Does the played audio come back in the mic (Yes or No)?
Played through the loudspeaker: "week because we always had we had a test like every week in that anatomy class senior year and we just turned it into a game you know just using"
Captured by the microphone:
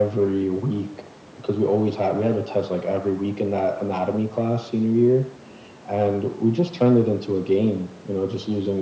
Yes